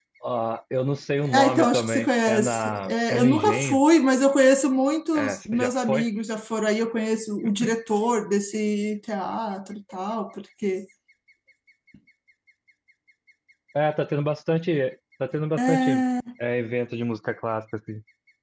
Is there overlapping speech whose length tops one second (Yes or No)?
Yes